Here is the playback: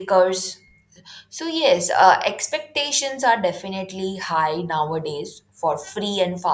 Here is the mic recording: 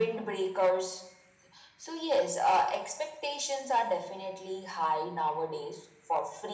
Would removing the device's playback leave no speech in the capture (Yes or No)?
Yes